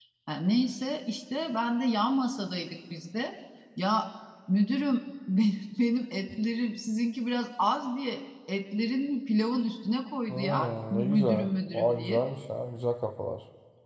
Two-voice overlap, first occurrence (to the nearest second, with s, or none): 10 s